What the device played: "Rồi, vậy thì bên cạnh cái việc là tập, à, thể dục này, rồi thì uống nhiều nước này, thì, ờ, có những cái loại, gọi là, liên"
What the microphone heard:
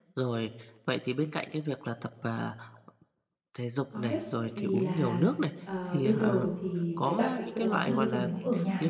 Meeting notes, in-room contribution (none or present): present